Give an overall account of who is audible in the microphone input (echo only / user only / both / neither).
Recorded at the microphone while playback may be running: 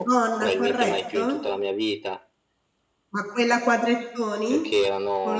both